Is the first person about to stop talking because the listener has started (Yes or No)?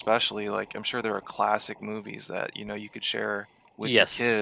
Yes